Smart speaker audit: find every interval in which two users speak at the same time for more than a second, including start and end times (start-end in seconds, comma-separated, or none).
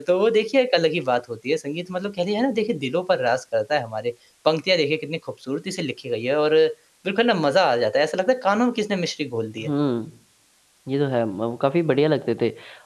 none